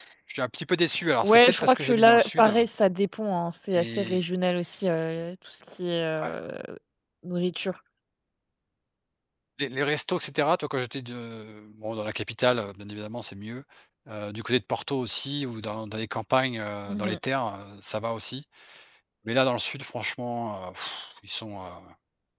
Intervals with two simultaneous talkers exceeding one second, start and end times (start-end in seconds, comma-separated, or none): 1.2-2.5